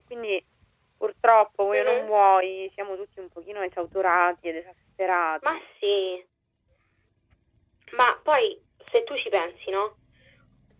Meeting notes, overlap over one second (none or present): none